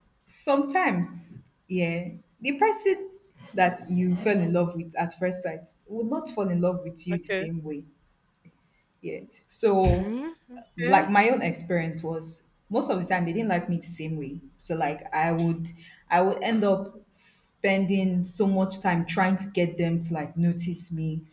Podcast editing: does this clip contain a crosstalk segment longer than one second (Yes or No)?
No